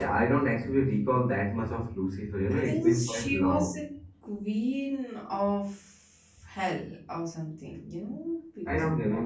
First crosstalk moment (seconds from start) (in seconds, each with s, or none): 2.5 s